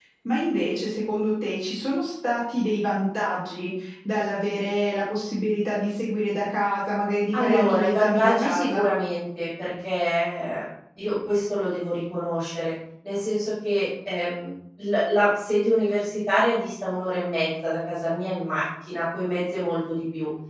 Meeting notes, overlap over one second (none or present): present